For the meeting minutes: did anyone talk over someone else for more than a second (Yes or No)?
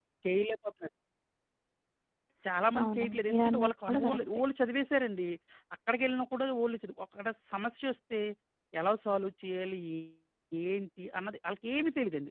Yes